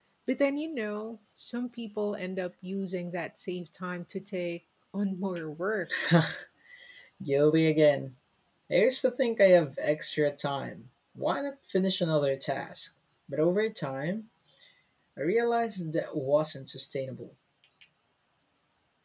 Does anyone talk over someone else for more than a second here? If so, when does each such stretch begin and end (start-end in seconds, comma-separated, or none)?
none